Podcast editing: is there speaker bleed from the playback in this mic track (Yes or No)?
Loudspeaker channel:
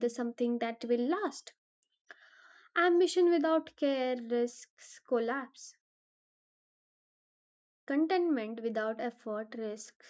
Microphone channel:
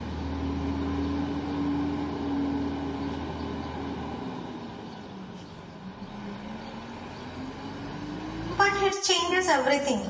No